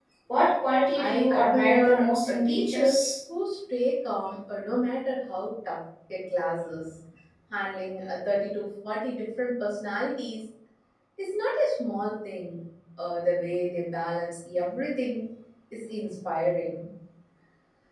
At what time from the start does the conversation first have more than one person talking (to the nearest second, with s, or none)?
1 s